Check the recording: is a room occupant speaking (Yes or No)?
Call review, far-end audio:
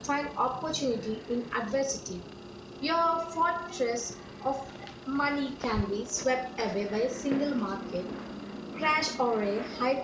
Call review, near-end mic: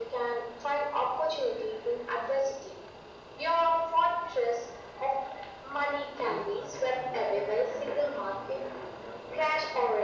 Yes